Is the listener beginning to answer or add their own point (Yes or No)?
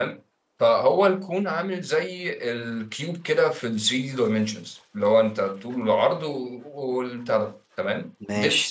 No